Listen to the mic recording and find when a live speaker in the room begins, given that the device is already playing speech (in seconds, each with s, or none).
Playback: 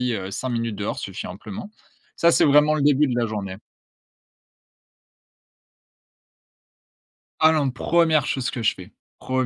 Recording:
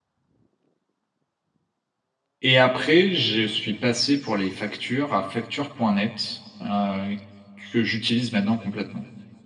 2.4 s